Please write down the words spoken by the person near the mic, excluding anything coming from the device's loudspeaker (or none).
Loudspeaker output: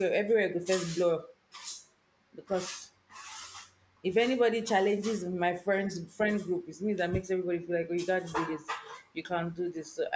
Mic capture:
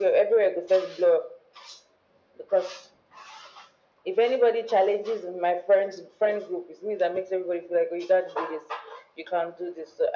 none